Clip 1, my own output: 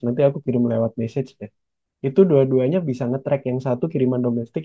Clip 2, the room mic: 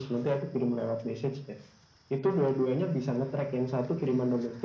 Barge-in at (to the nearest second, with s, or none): none